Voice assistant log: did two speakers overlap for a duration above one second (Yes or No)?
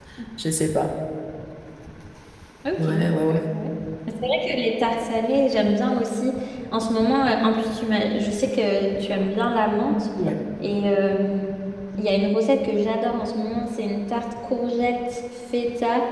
No